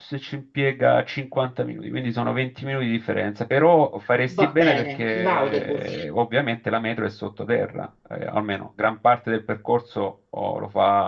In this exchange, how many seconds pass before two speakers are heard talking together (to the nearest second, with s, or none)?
4 s